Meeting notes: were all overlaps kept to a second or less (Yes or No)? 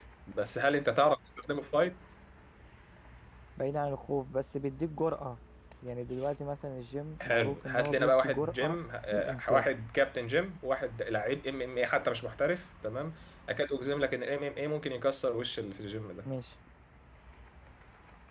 No